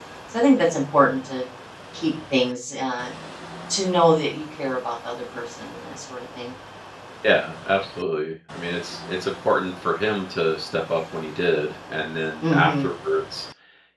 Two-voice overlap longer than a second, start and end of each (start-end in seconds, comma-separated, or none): none